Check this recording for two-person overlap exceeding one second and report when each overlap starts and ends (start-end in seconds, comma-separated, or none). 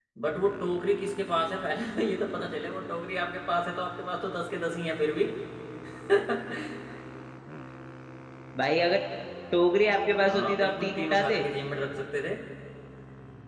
10.1-11.4